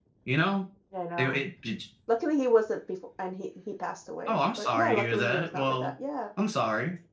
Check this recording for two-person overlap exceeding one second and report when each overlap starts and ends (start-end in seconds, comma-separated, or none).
4.3-5.9